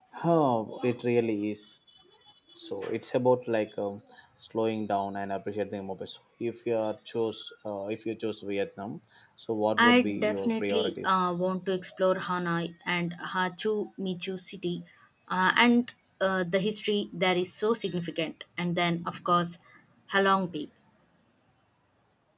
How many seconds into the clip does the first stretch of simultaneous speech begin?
10 s

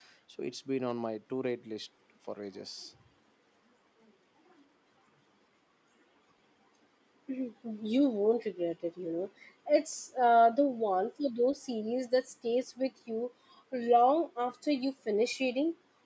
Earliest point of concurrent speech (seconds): none

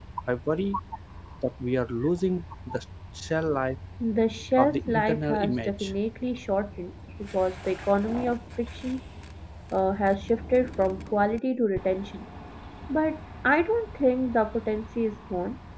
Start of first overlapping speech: 5 s

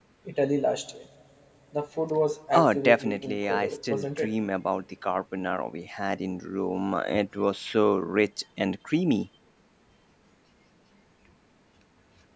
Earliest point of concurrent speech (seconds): 3 s

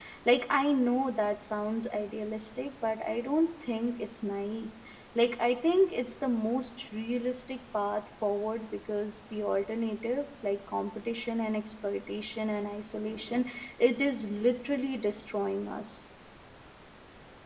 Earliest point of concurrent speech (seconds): none

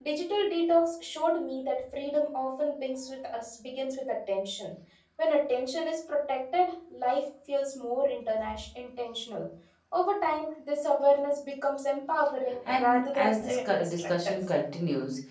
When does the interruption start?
13 s

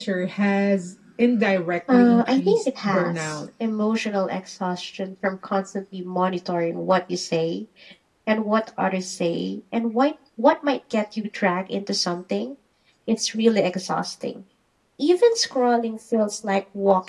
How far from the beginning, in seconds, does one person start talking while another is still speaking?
2 s

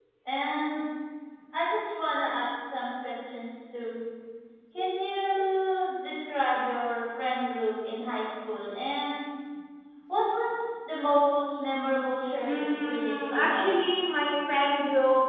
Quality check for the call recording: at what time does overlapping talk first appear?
12 s

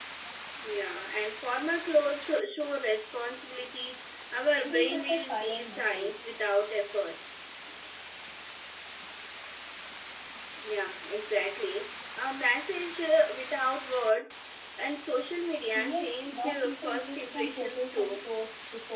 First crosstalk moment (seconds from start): 5 s

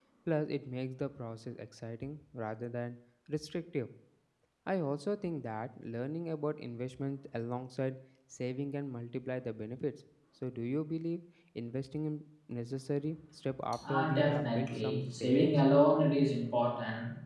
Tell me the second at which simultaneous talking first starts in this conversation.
14 s

